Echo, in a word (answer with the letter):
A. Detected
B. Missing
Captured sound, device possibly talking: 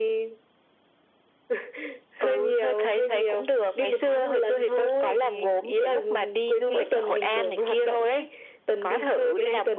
A